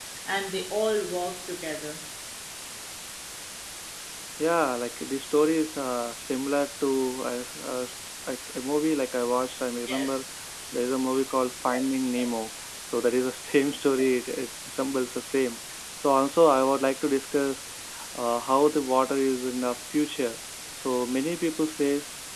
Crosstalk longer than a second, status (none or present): none